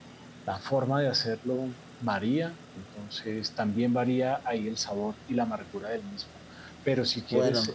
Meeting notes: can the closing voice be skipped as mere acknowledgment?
Yes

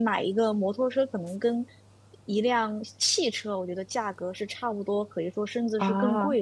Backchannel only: Yes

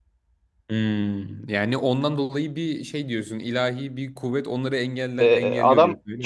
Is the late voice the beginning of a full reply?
Yes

